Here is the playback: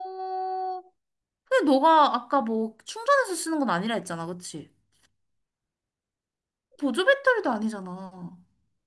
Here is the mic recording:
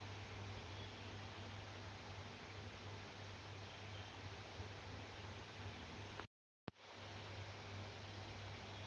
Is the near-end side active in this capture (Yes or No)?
No